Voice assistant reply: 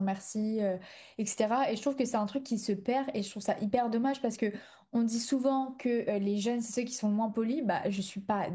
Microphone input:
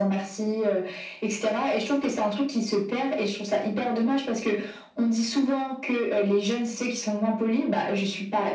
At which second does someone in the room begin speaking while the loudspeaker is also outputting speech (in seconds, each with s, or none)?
none